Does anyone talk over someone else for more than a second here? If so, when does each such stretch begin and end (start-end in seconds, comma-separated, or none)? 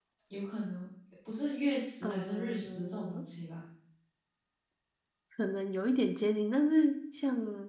2.0-3.2